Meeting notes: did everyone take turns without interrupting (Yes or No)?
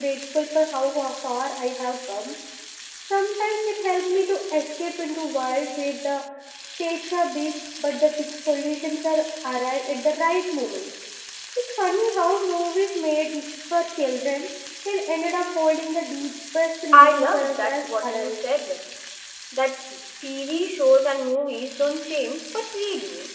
No